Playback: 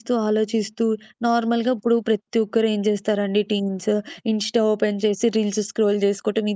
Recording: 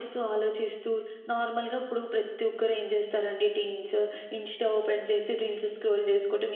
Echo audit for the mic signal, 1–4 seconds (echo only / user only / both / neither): echo only